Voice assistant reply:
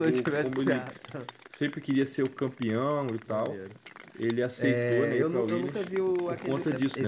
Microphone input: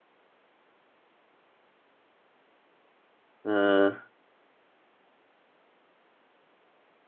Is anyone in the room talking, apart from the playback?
Yes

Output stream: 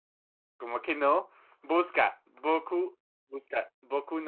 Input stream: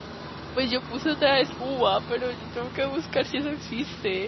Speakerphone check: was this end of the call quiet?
No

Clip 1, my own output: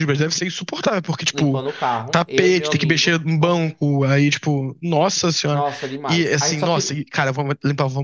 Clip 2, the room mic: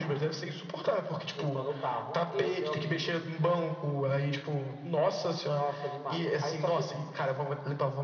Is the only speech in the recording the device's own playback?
Yes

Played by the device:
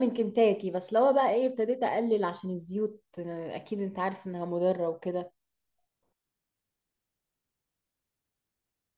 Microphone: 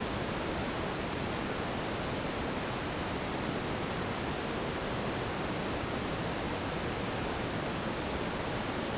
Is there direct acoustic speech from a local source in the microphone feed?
No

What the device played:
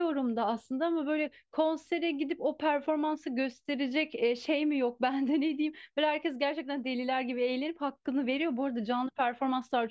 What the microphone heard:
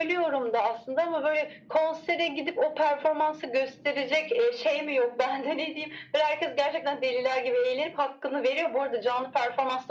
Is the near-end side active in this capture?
No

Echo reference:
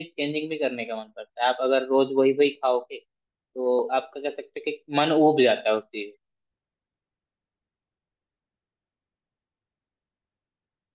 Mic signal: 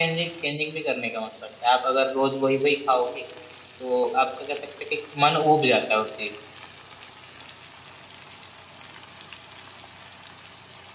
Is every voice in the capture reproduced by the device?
Yes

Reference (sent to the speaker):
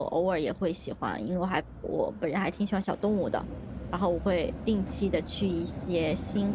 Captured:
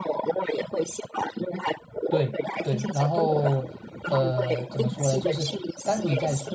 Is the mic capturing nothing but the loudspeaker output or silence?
No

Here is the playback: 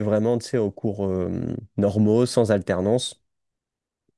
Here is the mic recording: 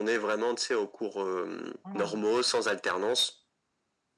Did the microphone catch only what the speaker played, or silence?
No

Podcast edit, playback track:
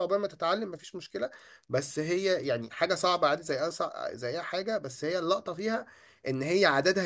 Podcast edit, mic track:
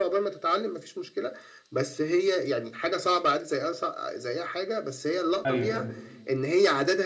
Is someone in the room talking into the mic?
Yes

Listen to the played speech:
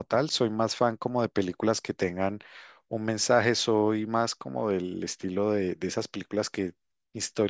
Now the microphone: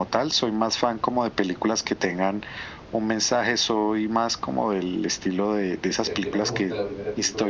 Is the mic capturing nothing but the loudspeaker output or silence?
No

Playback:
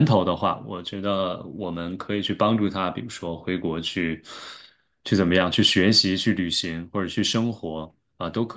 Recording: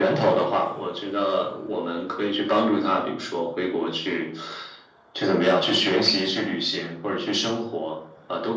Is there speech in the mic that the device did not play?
No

